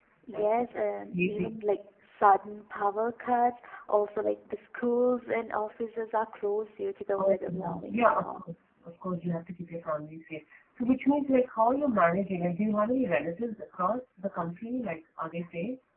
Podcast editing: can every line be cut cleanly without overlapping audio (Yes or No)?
No